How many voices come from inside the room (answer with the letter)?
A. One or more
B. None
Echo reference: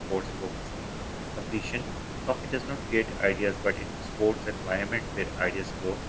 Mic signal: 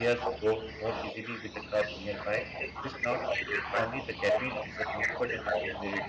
A